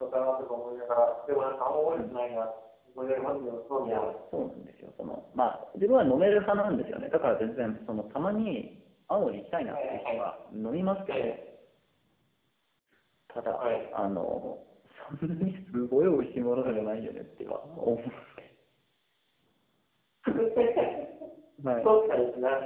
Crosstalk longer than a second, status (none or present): none